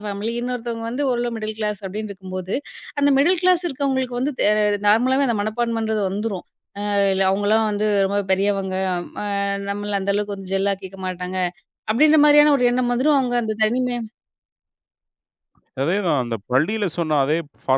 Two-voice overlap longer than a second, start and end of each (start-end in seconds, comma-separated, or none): none